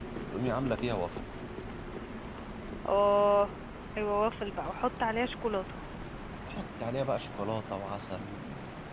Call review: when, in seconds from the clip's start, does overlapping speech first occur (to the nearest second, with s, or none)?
none